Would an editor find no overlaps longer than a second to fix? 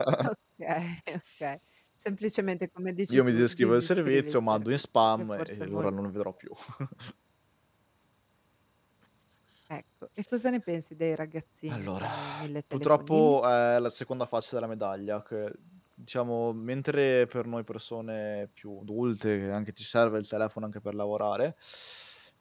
No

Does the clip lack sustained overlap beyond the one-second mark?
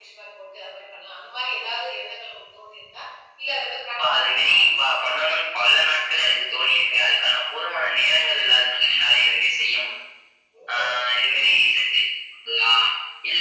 No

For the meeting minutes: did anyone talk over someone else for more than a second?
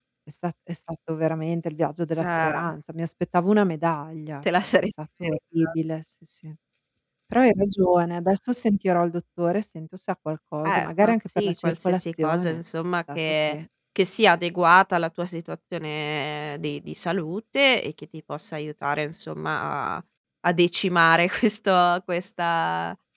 Yes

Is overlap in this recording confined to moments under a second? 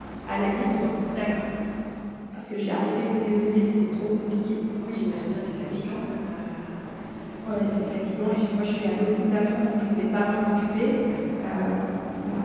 Yes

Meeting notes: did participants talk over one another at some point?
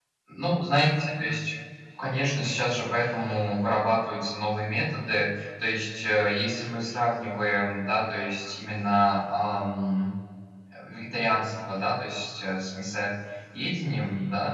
No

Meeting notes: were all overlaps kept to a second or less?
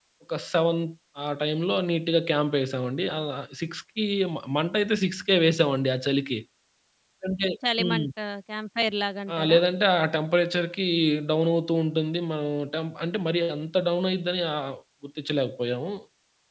Yes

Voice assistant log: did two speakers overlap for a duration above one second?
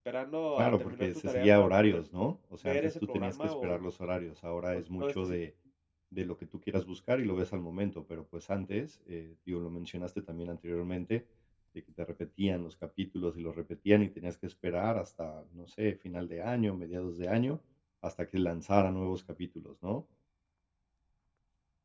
Yes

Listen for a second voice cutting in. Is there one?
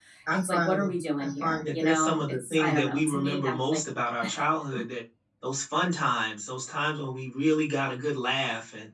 Yes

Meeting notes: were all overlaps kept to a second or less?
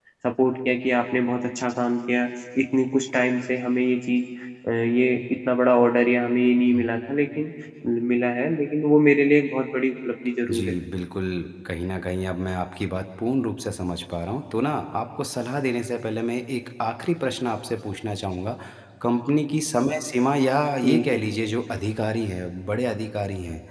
Yes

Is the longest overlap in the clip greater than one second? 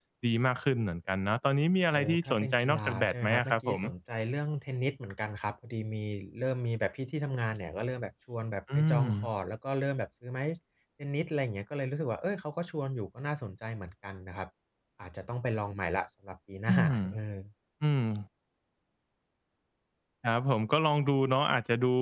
Yes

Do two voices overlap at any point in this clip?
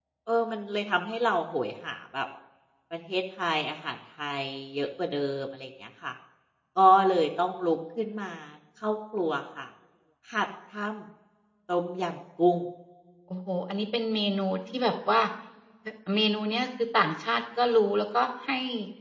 No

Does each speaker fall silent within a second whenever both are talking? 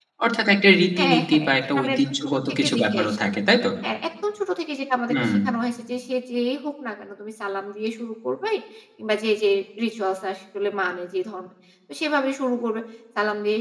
No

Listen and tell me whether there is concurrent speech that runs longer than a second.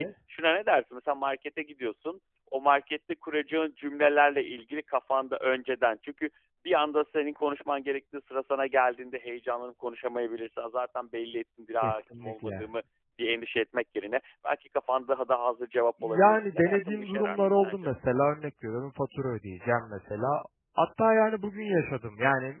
Yes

